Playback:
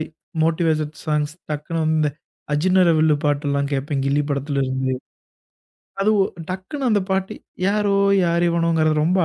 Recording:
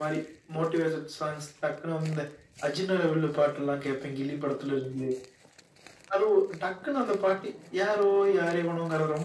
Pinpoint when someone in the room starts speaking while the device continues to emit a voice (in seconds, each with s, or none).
none